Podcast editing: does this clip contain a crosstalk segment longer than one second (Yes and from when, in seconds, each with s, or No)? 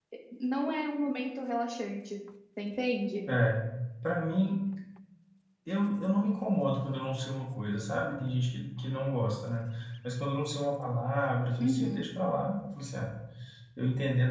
No